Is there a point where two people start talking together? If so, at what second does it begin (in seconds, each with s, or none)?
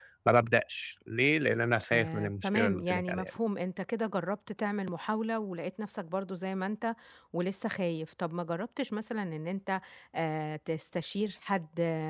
1.9 s